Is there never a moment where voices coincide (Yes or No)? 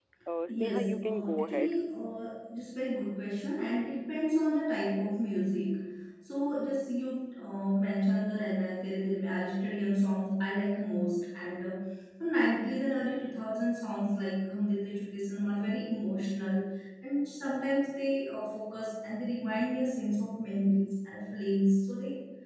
No